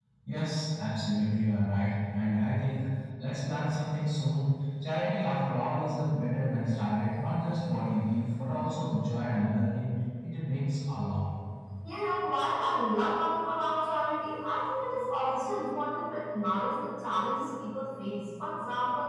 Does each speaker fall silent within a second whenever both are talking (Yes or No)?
Yes